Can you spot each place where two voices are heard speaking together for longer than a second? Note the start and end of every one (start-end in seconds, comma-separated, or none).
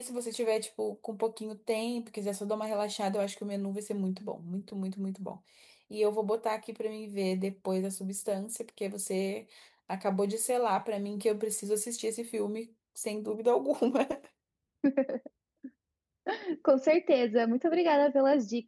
none